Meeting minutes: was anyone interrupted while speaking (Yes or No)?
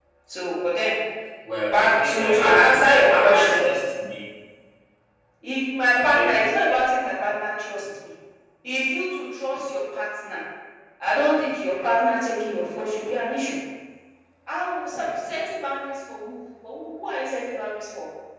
Yes